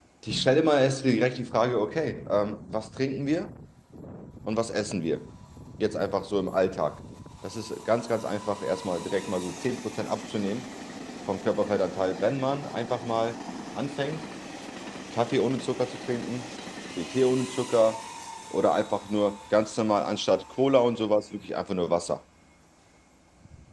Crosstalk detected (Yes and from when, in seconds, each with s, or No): No